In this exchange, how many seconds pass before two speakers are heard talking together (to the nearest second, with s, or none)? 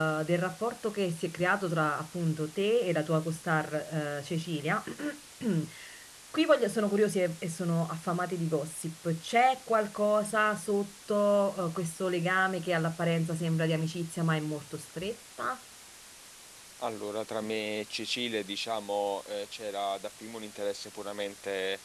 none